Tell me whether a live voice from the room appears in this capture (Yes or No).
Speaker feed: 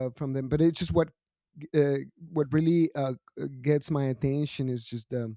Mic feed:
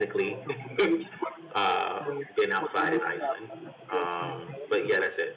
Yes